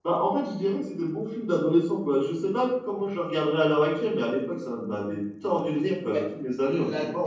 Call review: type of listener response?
taking over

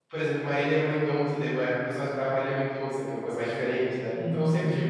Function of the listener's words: taking over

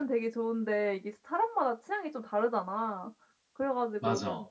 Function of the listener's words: listening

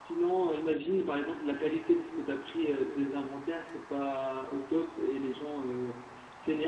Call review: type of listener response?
listening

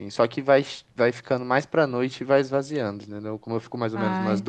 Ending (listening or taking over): listening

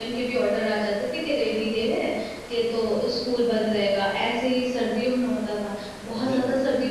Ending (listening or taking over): listening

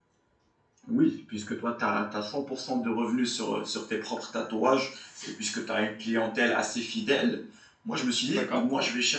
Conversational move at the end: listening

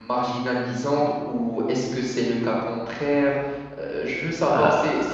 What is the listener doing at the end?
taking over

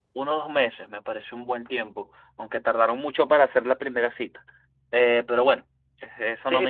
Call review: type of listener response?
taking over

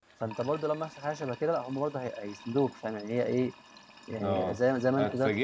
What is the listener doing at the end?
taking over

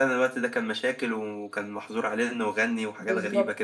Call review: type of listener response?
taking over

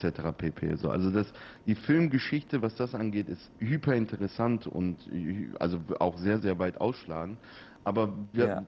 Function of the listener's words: listening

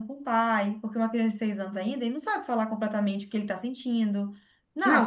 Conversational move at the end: taking over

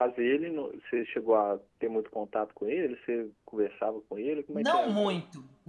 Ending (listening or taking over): taking over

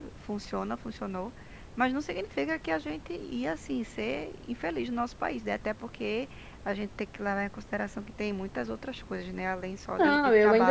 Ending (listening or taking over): taking over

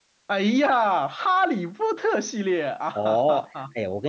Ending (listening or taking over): taking over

